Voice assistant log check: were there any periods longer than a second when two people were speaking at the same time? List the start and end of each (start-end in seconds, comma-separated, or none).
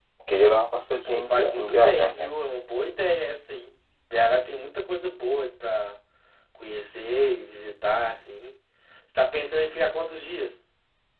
1.1-2.3